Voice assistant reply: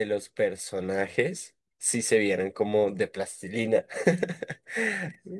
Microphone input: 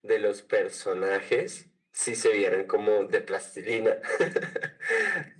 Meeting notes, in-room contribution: none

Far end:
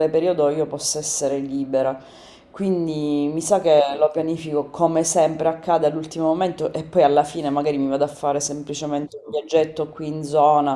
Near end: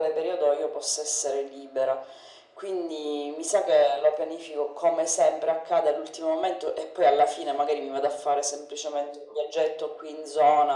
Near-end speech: none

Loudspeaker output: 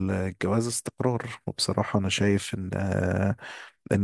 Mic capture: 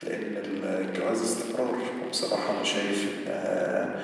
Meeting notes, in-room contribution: none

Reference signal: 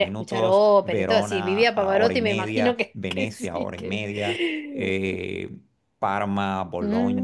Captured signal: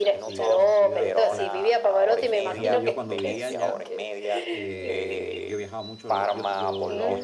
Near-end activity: present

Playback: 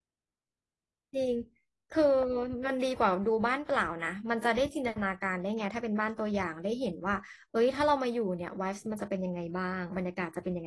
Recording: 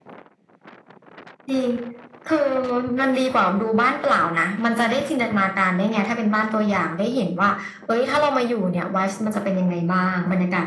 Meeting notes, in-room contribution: none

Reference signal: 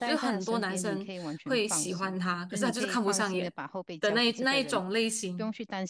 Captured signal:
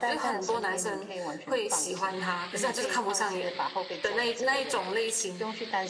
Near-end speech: none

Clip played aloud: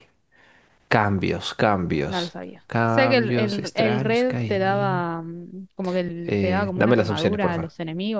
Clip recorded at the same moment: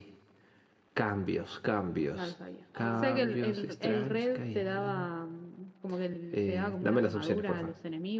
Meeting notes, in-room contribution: present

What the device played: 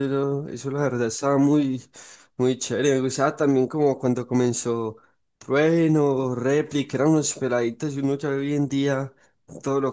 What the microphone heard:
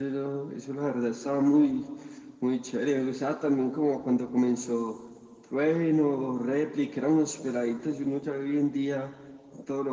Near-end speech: none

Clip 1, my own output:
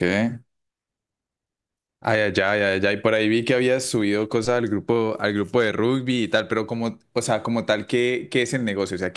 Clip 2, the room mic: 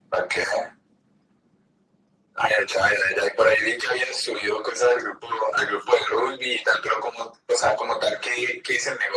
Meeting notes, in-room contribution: none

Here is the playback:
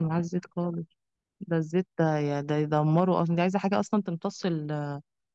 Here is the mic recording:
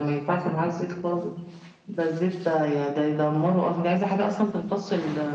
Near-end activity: none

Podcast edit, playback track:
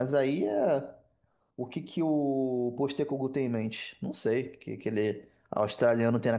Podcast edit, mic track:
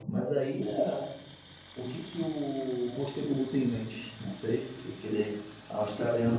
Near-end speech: none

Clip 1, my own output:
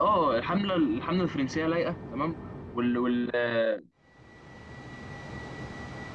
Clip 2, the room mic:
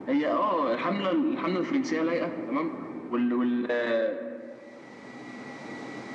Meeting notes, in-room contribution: none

